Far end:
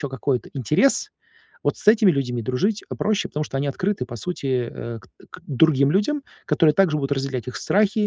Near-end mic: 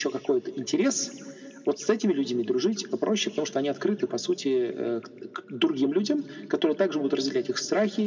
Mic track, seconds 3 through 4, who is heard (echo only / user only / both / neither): echo only